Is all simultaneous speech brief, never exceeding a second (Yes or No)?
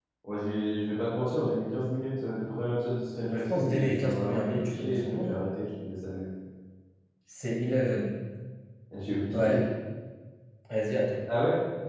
No